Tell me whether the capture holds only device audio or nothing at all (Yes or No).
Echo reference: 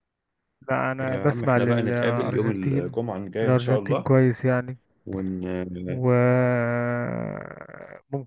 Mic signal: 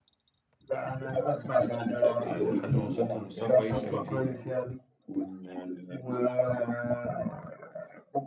No